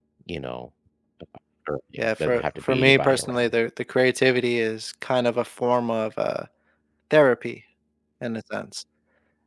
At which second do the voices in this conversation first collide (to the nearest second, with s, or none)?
2 s